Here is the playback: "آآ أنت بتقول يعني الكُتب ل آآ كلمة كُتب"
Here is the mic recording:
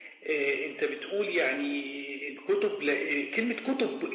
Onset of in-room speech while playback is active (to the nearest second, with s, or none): none